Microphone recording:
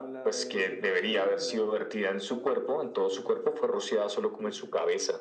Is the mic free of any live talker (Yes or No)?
No